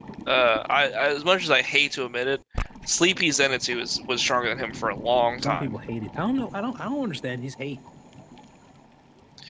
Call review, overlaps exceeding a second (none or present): none